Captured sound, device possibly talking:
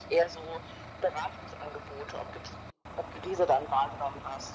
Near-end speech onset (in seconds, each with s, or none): none